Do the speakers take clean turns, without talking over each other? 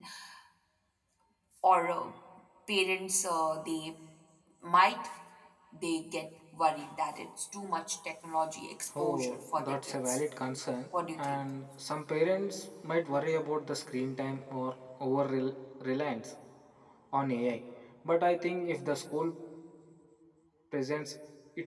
No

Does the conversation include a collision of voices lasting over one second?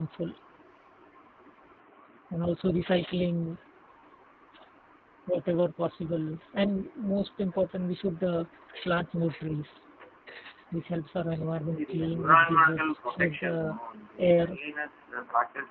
Yes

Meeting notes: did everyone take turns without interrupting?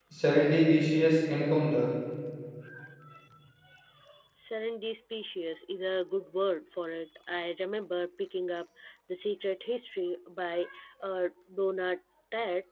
Yes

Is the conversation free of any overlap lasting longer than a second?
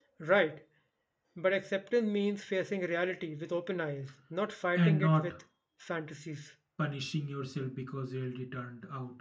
Yes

